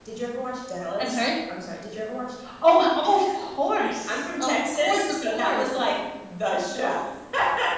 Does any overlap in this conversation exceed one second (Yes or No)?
Yes